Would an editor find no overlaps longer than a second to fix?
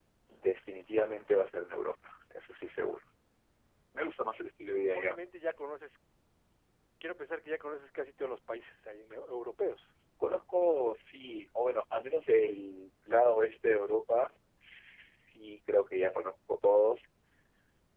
Yes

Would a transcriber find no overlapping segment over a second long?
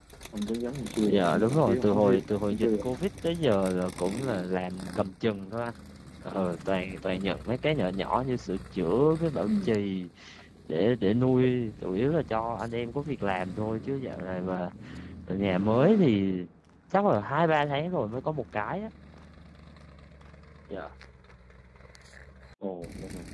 No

